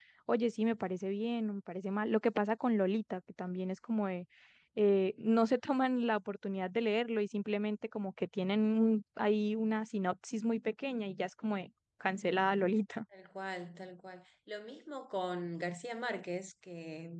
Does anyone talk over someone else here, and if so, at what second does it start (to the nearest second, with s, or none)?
none